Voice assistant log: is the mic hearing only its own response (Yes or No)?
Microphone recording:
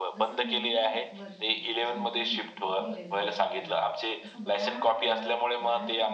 No